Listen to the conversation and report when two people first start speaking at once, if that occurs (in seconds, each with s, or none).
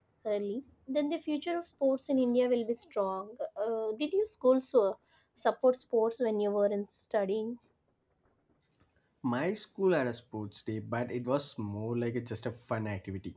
none